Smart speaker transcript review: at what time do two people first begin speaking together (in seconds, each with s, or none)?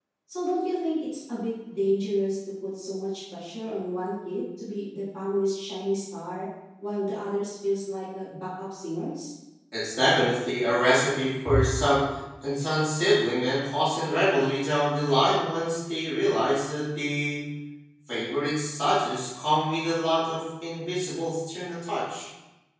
none